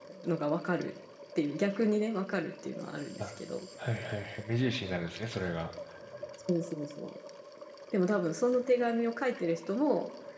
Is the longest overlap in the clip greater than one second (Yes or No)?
No